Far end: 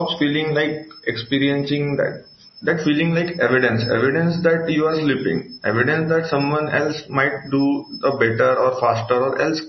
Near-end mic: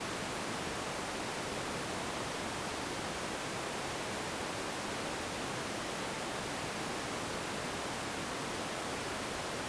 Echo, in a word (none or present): none